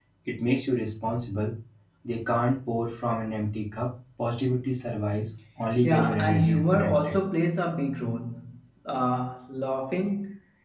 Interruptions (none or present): present